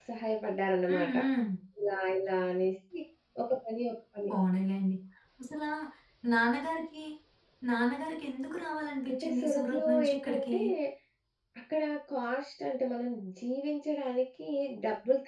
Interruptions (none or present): present